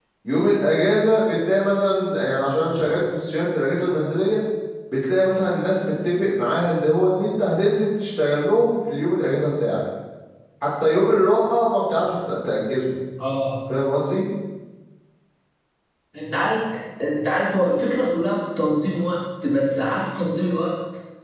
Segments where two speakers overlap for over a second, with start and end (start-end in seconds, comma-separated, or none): none